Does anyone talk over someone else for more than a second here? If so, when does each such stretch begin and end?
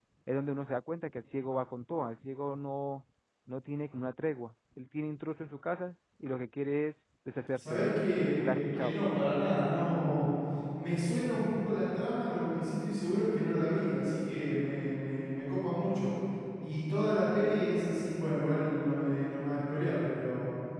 7.6-8.9

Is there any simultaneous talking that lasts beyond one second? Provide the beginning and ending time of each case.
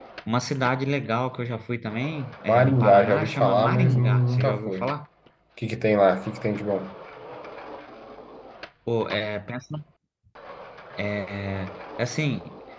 2.5-4.9

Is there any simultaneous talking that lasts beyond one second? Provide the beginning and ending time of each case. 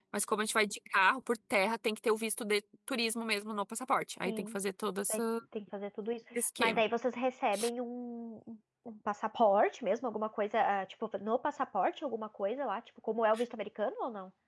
none

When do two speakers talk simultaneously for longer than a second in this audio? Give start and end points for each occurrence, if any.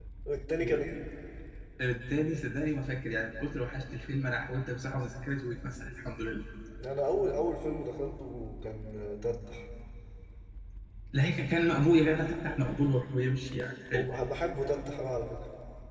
none

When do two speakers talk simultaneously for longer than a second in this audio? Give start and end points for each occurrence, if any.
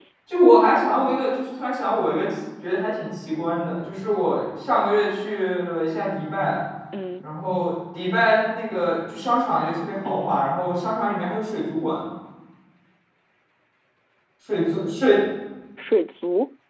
none

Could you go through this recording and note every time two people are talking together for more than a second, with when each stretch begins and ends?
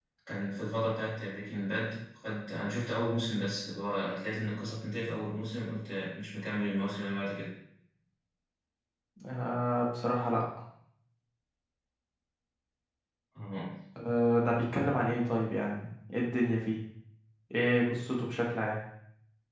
none

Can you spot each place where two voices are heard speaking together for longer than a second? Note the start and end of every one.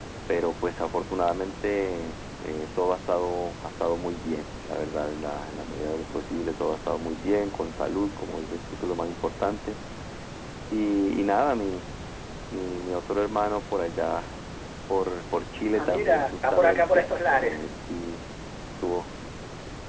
15.8-17.6

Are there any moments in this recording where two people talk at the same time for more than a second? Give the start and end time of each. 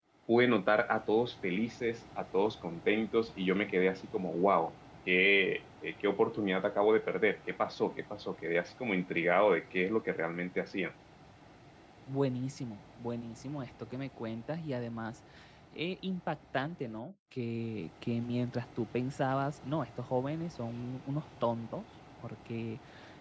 none

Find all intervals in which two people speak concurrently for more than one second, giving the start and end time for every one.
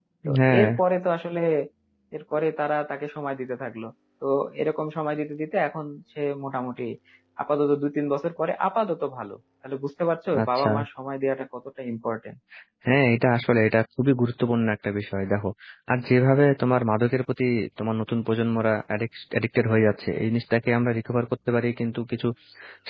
none

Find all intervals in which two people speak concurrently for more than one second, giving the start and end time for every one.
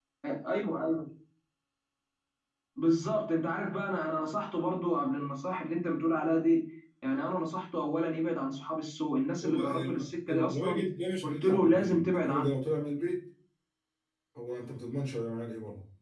9.4-10.8, 11.2-12.5

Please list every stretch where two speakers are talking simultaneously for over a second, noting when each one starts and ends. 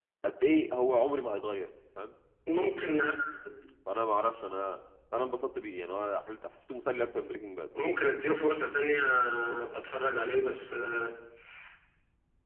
none

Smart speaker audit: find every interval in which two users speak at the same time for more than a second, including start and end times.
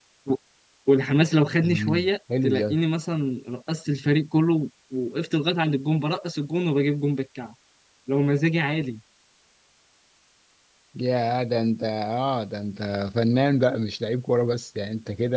none

